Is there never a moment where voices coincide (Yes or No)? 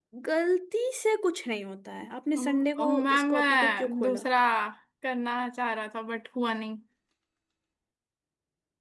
No